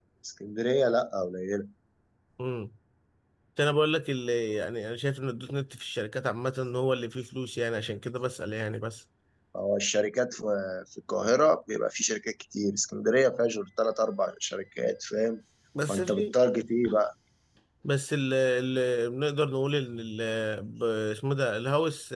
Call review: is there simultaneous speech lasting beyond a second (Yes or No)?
No